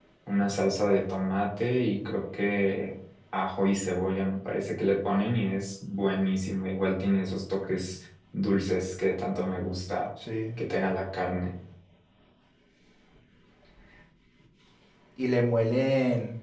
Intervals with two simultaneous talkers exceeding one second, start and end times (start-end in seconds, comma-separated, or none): none